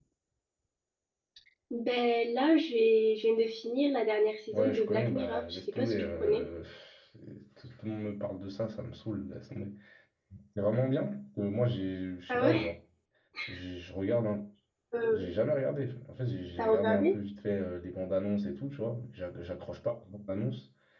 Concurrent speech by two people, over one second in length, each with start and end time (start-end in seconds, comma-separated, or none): 4.5-6.4